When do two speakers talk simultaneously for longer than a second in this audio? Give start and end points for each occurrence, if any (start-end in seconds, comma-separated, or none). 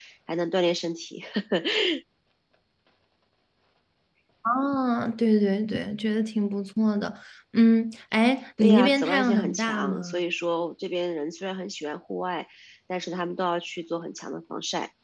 8.6-10.2